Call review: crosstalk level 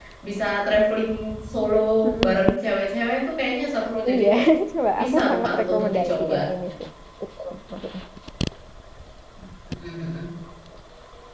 present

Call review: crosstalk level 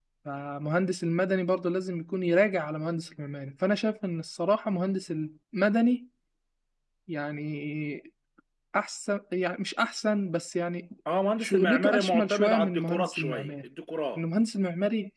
present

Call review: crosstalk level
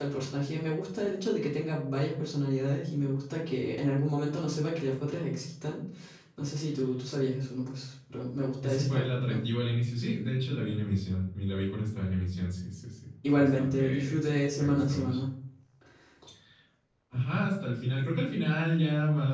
present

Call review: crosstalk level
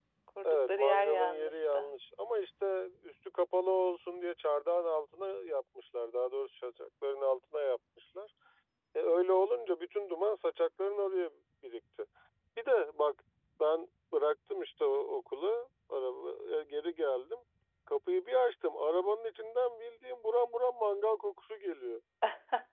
present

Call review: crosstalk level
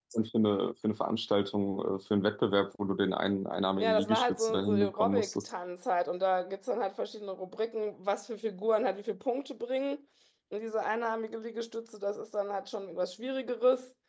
present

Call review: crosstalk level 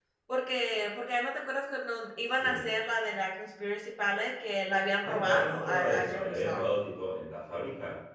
present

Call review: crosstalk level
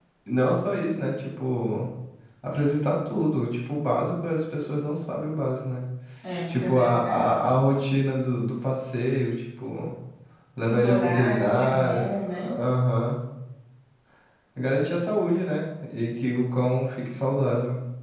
present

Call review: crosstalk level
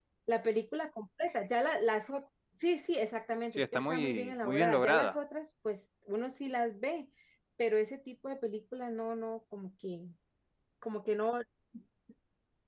present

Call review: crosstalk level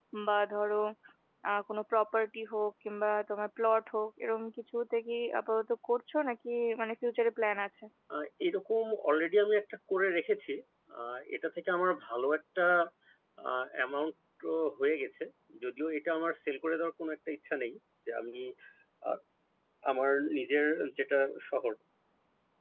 none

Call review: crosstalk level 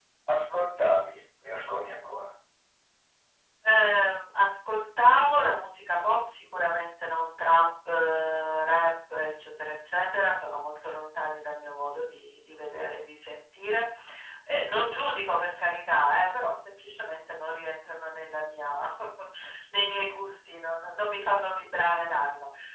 none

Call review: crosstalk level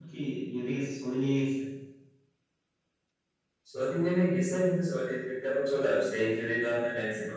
none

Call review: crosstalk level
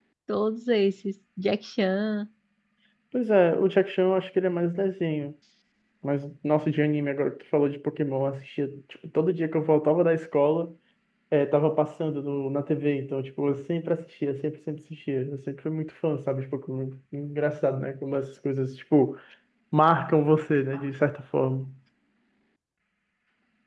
none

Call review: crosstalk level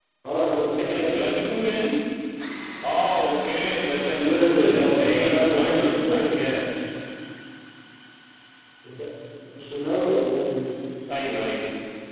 present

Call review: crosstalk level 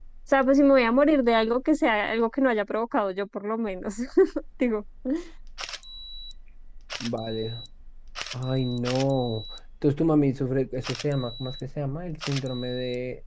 none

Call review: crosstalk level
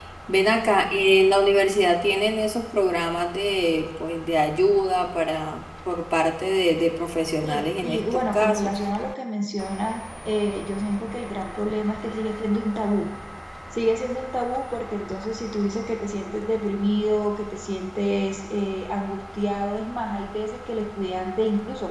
present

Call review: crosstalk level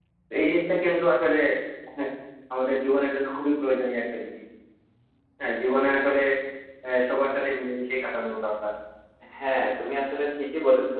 none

